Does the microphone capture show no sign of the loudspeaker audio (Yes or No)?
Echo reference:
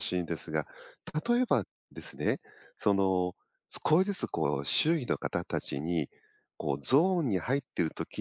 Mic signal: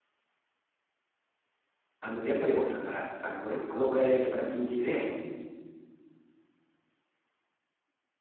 Yes